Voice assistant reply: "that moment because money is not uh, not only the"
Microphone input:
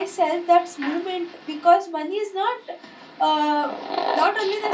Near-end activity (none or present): none